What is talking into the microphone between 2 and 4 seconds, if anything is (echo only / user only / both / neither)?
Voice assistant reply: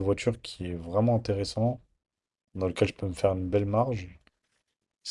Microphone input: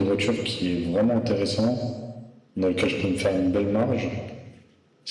echo only